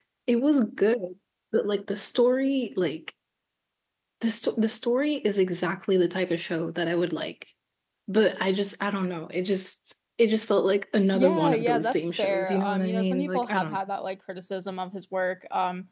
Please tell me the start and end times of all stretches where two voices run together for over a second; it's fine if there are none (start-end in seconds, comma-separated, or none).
11.1-13.8